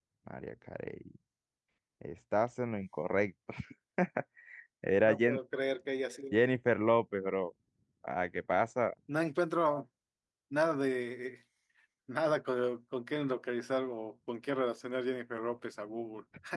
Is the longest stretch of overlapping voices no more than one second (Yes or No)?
Yes